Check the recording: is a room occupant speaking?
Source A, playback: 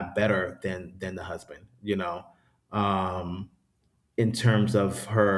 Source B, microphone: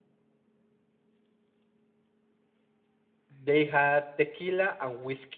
Yes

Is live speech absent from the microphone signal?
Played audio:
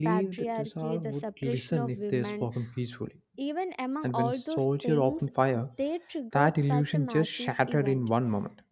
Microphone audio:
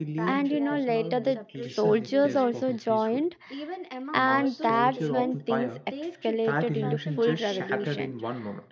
No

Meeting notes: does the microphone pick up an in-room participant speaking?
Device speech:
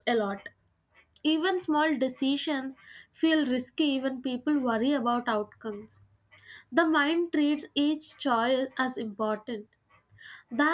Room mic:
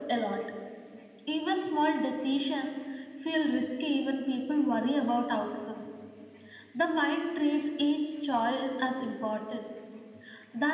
No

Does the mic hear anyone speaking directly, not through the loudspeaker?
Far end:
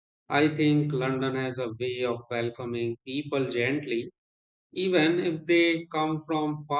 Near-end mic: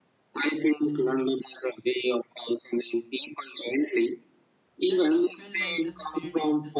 Yes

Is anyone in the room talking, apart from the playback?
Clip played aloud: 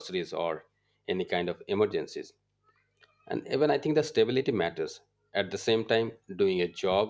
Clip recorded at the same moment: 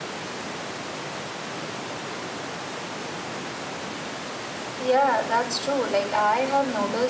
Yes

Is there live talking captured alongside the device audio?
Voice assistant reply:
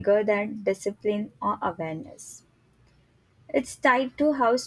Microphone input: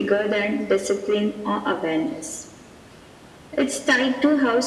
No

